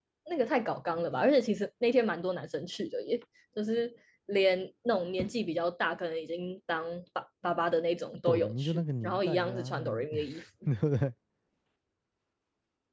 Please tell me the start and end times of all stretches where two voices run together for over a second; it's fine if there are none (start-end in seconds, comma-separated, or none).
8.3-10.1